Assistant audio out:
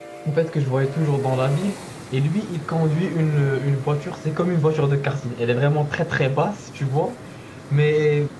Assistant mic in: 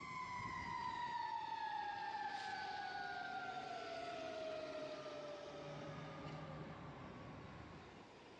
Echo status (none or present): none